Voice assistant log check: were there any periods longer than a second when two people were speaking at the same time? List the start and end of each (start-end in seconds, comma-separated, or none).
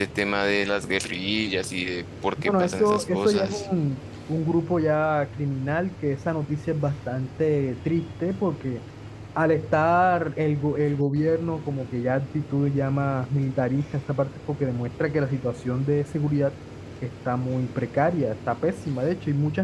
2.4-3.7